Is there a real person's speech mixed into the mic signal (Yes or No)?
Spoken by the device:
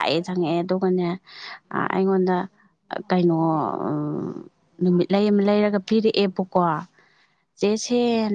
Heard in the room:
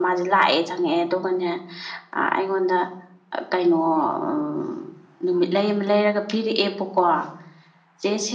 No